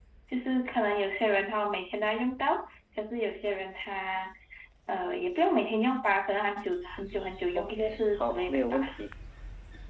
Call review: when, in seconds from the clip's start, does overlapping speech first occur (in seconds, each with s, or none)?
7.5 s